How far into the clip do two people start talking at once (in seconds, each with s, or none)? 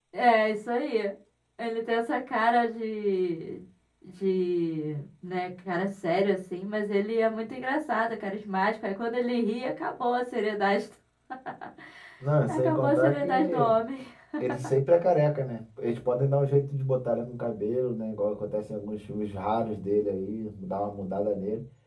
12.5 s